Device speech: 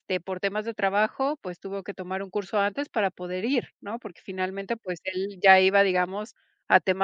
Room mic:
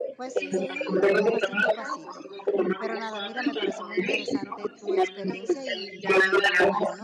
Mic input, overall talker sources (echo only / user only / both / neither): both